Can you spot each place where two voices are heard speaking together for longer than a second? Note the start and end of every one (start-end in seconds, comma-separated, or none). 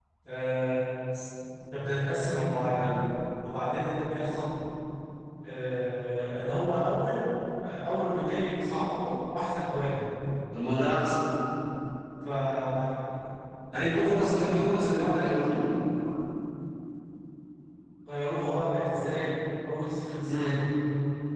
13.9-15.7